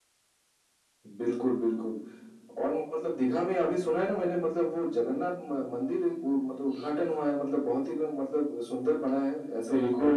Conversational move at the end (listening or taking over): taking over